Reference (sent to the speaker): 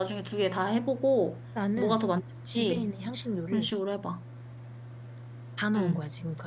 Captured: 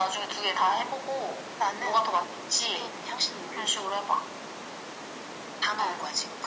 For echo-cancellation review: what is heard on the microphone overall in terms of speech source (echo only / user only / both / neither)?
echo only